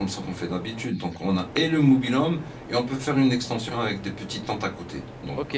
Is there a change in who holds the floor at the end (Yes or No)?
Yes